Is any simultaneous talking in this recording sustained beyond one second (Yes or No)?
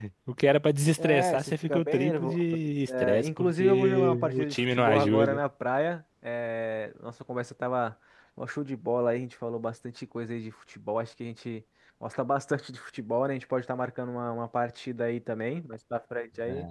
Yes